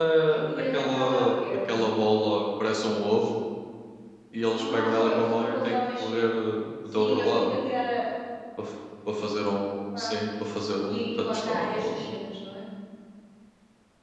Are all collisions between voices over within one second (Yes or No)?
No